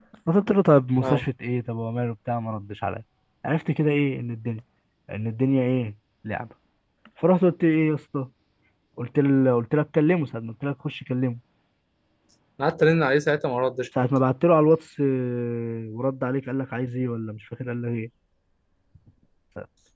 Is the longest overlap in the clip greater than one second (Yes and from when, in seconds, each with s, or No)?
No